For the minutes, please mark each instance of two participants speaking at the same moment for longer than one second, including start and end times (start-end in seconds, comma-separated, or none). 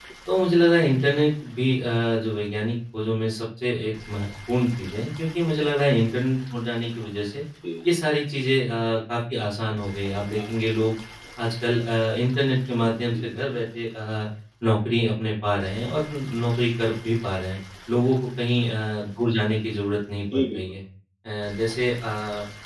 none